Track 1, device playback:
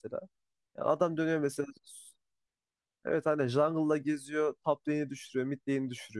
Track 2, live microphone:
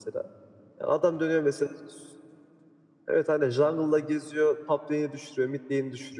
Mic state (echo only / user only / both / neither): echo only